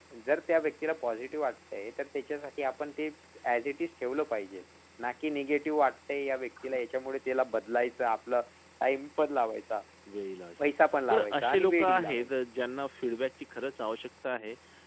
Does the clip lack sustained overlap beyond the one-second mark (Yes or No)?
No